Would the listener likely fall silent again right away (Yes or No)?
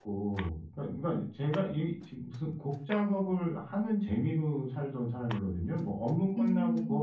Yes